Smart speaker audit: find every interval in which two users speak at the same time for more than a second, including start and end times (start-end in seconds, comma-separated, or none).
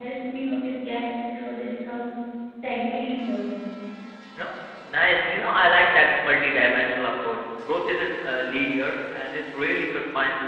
none